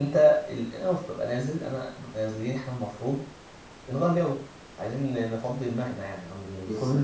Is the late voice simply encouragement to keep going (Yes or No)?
Yes